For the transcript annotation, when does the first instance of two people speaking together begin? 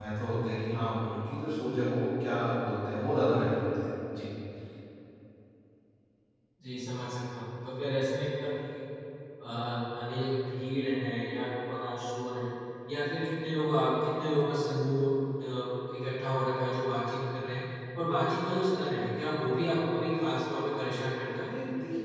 none

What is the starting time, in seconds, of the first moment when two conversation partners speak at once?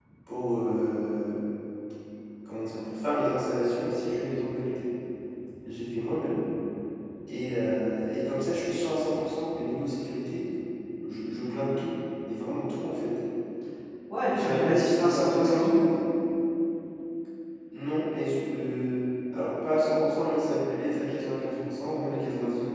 14.3 s

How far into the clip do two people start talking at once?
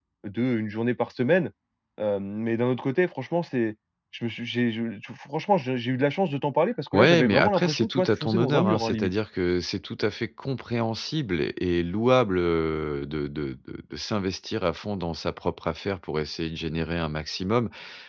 6.9 s

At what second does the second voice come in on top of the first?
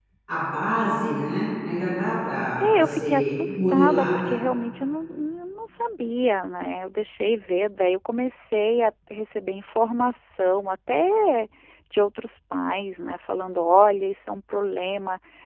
2.6 s

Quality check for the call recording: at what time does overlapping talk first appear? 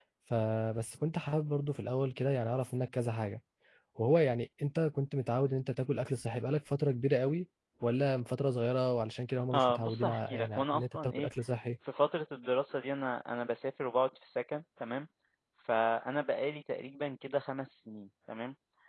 9.5 s

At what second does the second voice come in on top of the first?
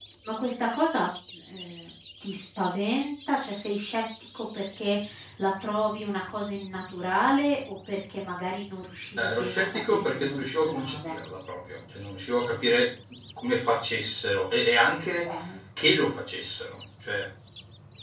9.2 s

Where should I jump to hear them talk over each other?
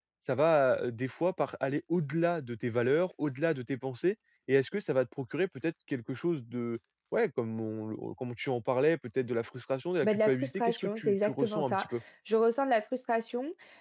10.0 s

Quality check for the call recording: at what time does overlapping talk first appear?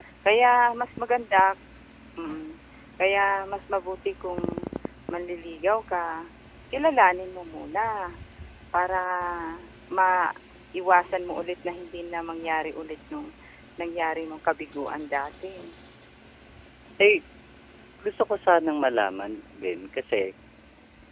none

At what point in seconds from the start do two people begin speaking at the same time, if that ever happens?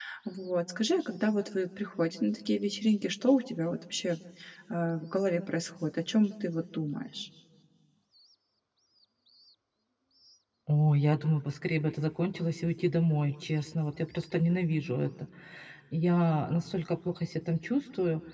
none

